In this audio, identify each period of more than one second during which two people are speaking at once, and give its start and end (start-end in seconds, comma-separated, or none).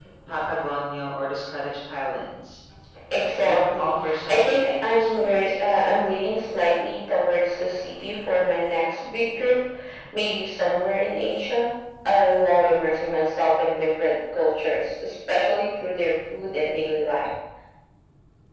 3.4-5.8